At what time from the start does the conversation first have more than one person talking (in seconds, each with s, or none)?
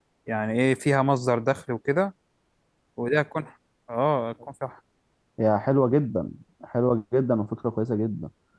none